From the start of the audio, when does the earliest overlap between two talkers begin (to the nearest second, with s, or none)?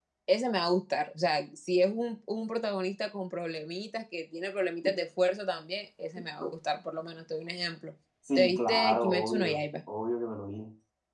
8 s